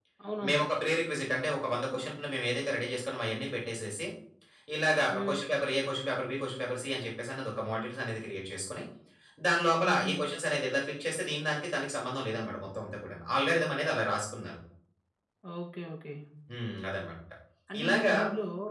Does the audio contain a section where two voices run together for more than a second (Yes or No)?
No